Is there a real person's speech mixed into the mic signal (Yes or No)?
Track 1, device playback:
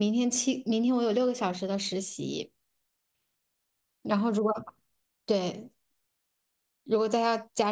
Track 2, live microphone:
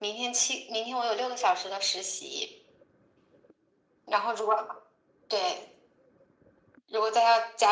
No